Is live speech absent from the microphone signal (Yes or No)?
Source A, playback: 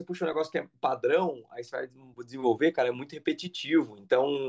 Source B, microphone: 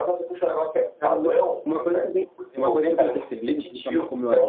No